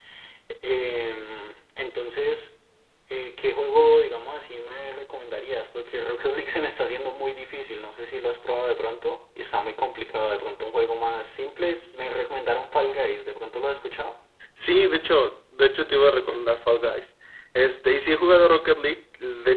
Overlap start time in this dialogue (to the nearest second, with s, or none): none